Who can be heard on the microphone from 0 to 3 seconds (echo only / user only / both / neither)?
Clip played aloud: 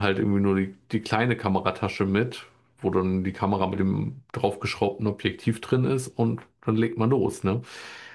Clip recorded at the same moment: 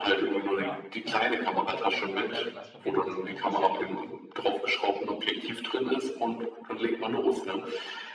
both